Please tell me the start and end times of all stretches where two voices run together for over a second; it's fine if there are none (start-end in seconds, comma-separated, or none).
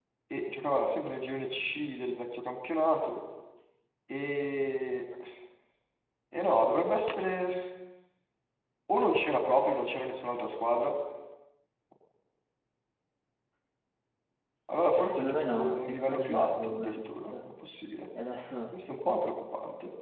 15.0-17.5